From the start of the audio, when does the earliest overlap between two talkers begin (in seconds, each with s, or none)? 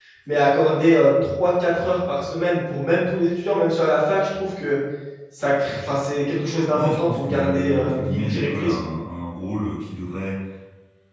6.7 s